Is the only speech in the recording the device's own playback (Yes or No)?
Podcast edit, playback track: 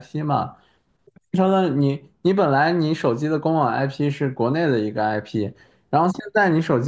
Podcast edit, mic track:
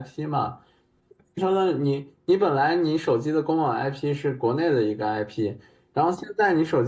Yes